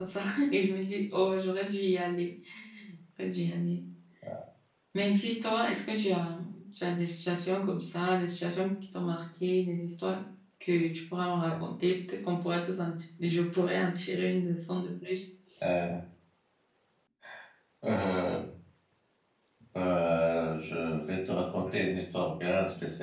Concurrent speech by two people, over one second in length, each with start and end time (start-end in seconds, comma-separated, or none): none